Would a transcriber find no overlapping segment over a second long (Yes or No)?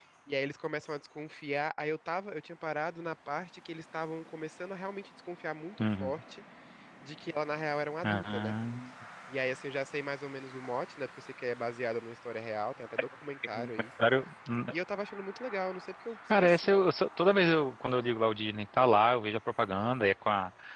Yes